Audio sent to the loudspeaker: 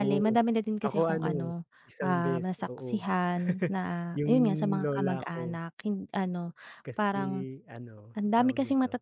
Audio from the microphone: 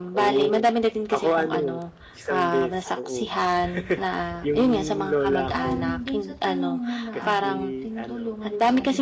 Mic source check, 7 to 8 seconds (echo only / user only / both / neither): both